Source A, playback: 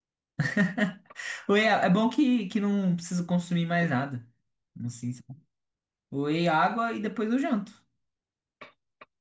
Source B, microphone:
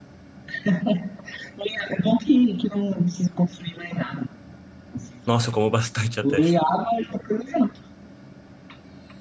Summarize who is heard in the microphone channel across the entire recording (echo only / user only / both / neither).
both